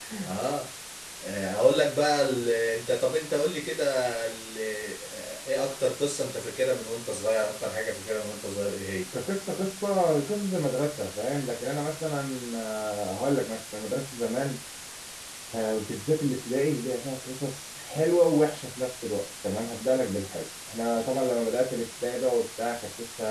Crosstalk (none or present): none